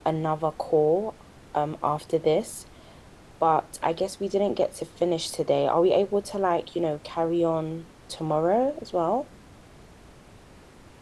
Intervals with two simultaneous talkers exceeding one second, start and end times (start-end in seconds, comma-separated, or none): none